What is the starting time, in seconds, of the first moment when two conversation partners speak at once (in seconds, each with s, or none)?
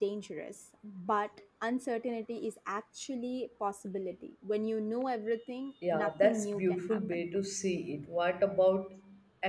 5.8 s